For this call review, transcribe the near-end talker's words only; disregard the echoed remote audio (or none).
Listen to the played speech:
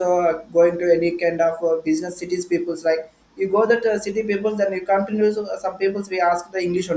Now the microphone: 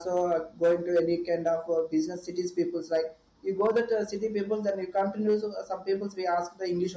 none